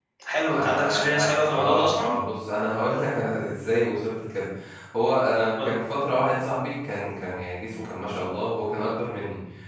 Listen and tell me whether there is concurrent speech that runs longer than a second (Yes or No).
Yes